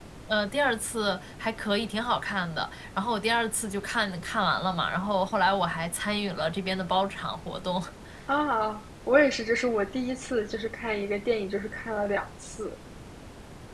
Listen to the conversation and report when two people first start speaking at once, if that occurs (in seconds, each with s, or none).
none